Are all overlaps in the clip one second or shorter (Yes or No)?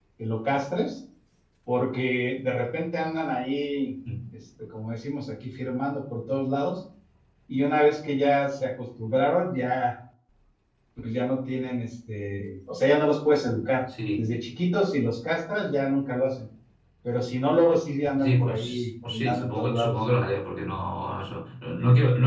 No